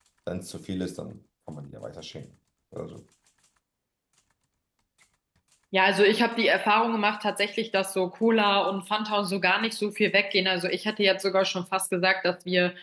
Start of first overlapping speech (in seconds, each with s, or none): none